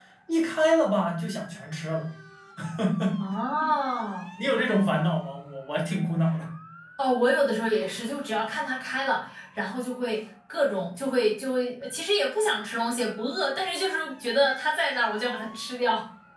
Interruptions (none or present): none